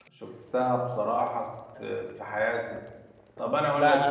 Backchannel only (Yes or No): No